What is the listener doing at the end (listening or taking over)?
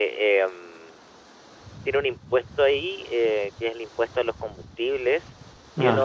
listening